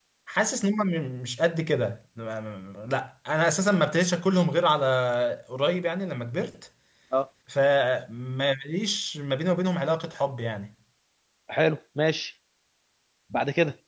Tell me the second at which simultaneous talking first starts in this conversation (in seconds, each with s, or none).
none